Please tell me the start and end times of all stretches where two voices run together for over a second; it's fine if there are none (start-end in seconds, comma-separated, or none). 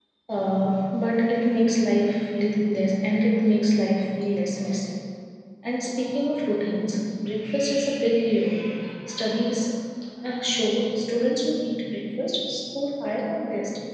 none